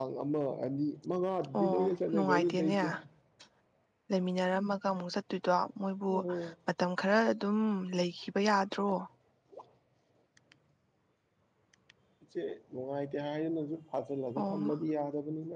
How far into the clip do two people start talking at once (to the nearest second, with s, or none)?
2 s